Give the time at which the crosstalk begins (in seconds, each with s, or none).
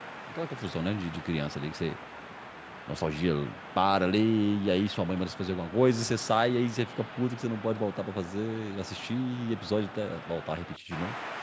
none